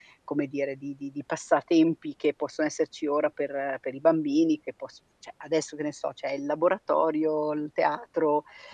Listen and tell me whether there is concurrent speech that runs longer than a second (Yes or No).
No